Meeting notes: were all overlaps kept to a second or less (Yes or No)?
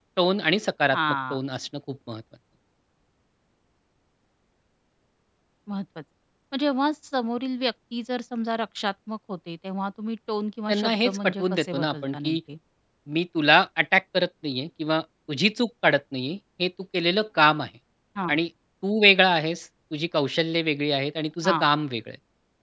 No